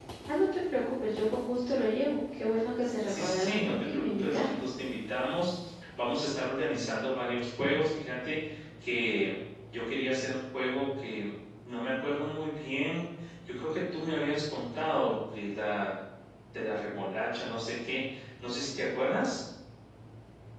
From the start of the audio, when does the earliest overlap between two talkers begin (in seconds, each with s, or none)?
3.1 s